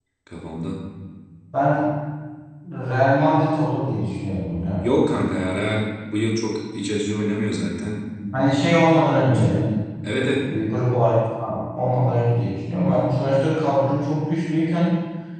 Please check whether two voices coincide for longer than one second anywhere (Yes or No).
No